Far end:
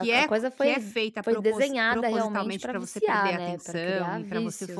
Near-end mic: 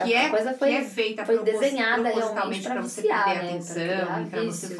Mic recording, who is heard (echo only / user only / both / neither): echo only